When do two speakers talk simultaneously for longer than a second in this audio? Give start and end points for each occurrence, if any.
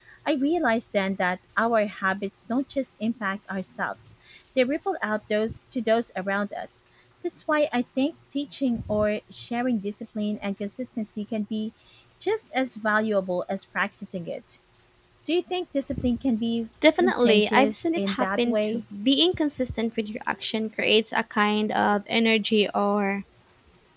17.0-18.8

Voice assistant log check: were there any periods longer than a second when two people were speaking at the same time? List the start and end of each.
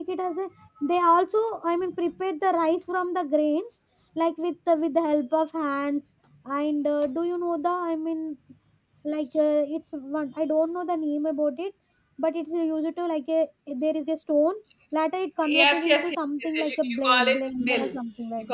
15.5-18.0

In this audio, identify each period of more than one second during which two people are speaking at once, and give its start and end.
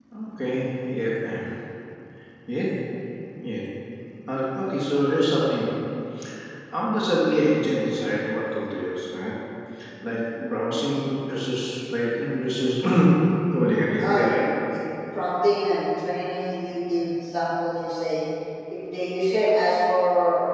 none

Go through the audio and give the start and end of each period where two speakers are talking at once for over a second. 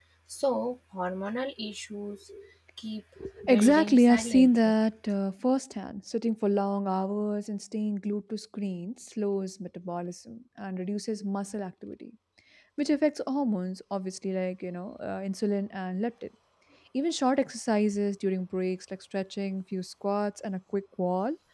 3.5-4.7

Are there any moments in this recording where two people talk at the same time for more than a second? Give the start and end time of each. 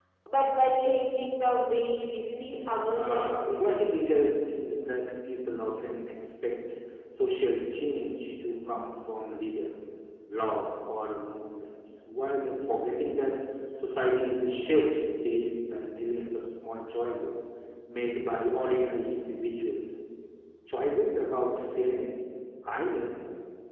2.9-4.2

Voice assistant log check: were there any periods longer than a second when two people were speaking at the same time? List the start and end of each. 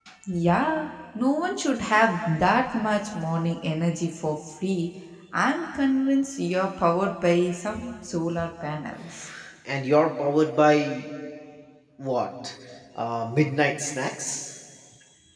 none

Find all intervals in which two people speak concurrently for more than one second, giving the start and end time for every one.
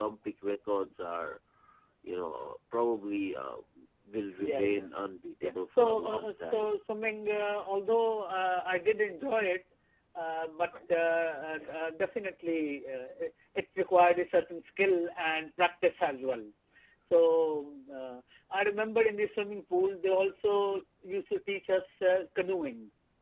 5.4-6.7

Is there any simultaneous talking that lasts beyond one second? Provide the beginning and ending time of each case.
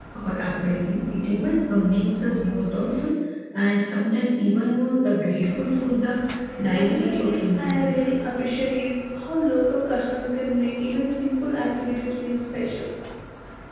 6.6-8.0

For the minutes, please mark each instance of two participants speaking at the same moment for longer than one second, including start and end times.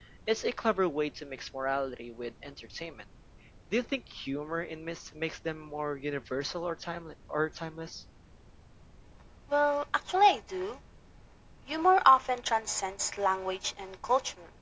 none

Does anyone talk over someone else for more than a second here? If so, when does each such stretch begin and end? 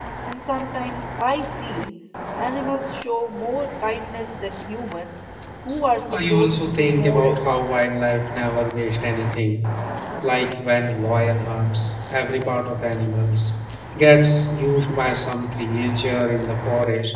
6.1-7.7

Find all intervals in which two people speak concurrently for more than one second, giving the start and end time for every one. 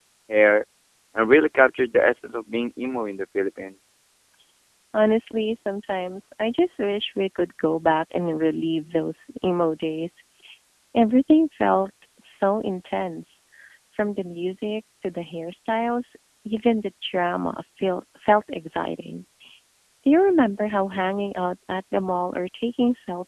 none

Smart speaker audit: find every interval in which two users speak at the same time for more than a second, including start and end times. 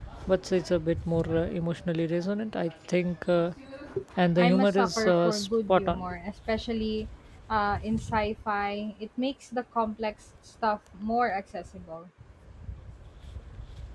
4.4-6.1

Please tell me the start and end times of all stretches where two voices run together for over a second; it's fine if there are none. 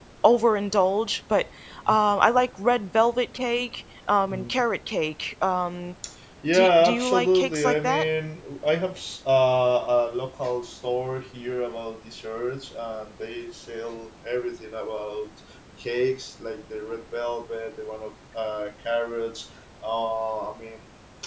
6.5-8.1

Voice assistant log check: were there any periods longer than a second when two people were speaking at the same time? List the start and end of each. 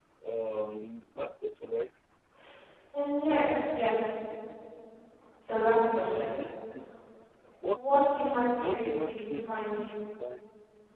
8.6-10.0

